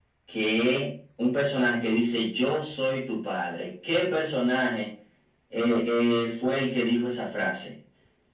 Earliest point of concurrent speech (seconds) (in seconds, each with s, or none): none